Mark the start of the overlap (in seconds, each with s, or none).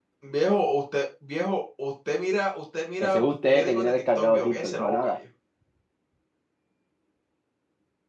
3.0 s